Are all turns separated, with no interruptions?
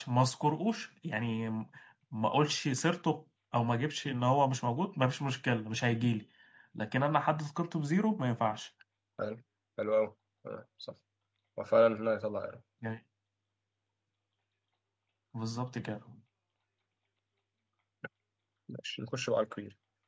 Yes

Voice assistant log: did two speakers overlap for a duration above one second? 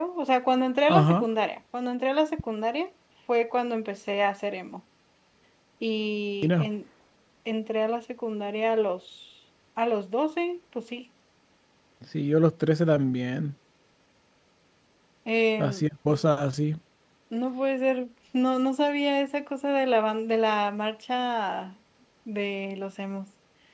No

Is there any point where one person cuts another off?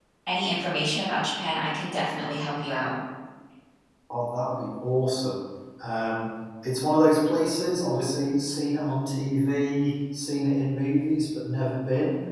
No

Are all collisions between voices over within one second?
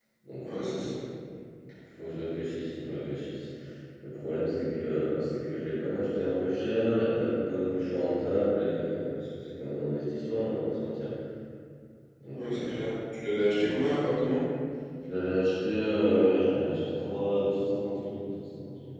Yes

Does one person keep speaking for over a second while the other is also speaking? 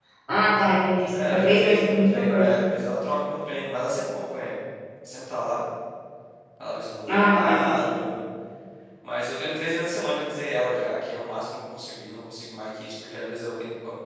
Yes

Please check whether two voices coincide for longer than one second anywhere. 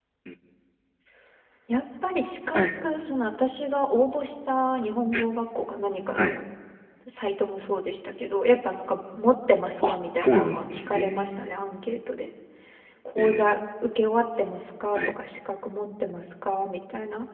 Yes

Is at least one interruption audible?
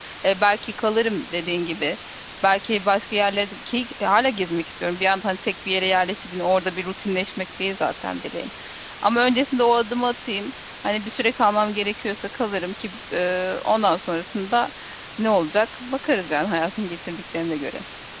No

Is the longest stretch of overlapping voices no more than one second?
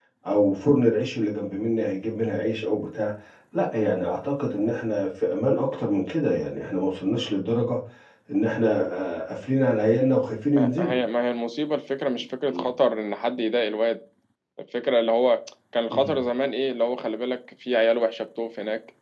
Yes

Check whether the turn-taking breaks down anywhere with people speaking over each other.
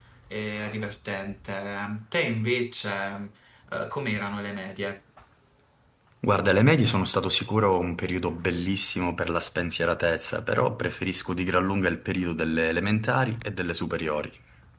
No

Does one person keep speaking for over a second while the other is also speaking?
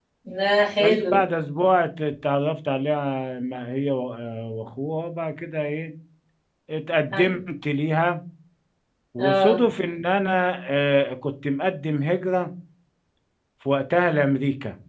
No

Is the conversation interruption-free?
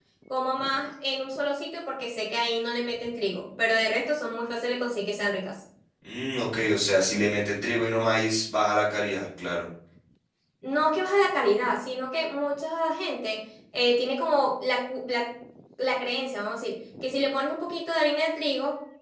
Yes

